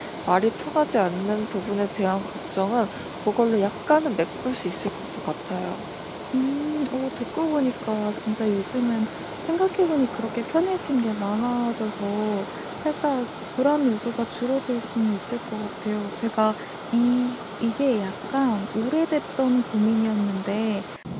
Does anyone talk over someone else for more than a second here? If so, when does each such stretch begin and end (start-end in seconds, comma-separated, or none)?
none